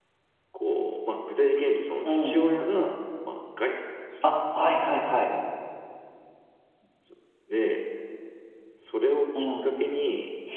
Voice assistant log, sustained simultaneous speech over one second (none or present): none